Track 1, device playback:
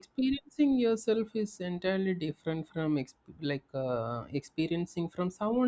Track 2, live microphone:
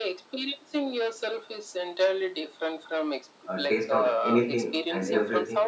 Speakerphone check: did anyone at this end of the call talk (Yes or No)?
Yes